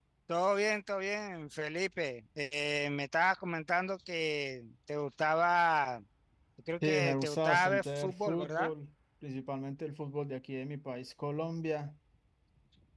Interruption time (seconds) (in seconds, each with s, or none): 6.8 s